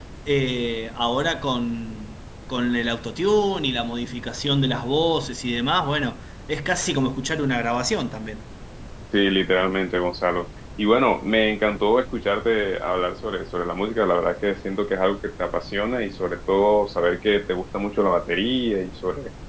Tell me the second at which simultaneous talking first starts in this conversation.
none

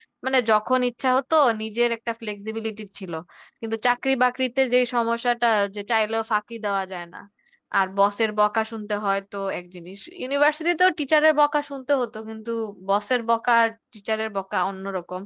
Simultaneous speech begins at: none

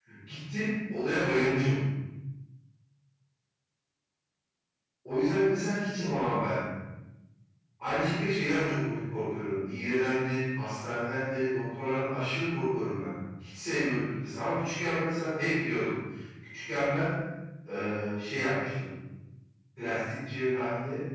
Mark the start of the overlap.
none

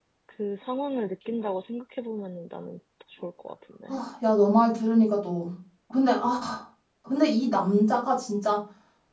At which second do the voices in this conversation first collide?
none

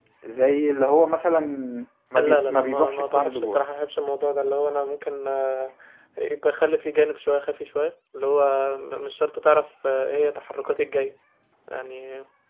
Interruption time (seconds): 2.1 s

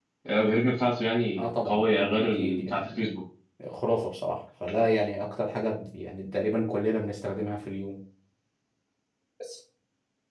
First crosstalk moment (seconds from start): 1.4 s

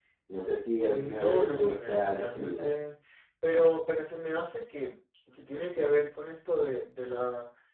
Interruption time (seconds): 0.8 s

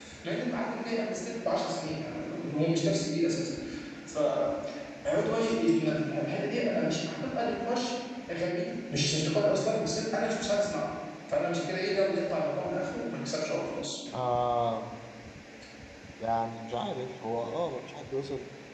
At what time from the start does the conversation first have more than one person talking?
none

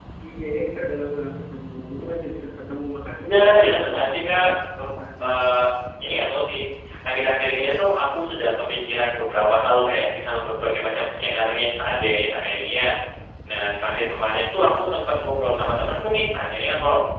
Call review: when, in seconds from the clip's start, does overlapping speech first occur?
3.2 s

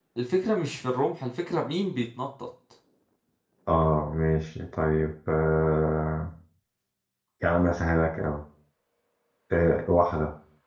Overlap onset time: none

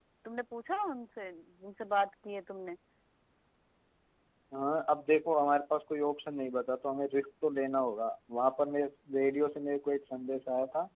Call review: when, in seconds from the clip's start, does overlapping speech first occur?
none

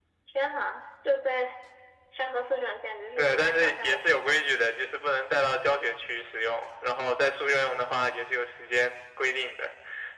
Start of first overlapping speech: 3.1 s

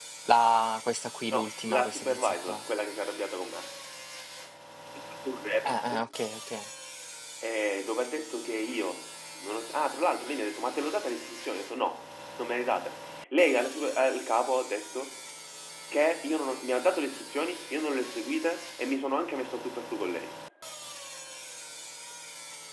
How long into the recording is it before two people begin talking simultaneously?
1.3 s

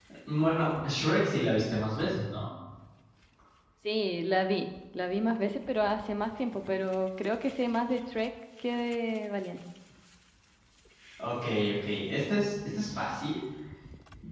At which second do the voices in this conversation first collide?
none

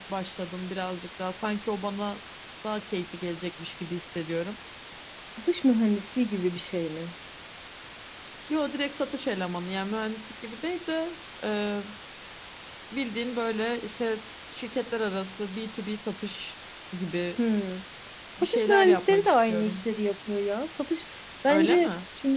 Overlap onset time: 18.4 s

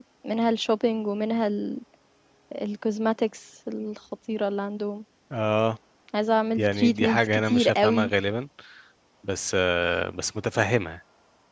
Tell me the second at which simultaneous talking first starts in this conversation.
6.6 s

